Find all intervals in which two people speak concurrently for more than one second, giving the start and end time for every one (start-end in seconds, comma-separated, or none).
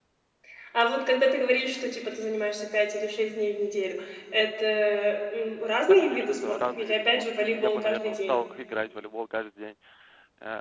5.9-8.4